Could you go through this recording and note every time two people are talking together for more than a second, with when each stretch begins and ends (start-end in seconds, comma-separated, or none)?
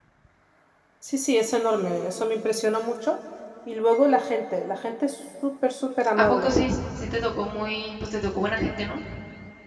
none